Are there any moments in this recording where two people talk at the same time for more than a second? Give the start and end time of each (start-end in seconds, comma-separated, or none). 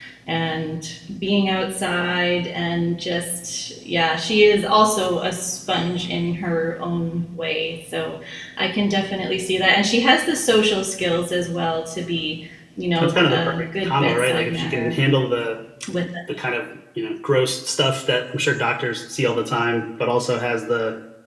13.0-14.9